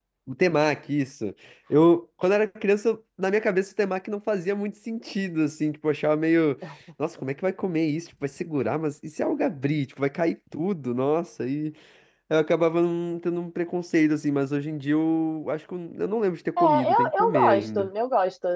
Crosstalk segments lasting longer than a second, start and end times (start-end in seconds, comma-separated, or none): 16.6-17.9